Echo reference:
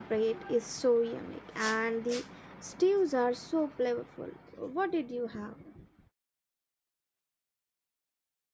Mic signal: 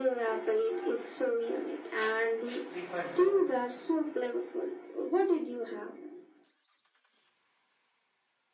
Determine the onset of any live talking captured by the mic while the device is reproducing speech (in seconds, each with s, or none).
2.8 s